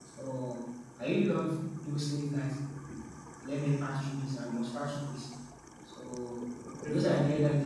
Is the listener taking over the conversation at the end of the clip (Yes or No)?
No